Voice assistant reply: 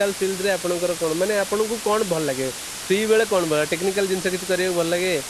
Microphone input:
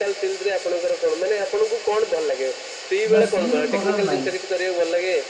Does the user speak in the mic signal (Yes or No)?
Yes